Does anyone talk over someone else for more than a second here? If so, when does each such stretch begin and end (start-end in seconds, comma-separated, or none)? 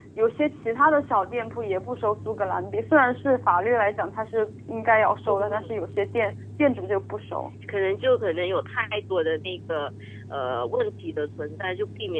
none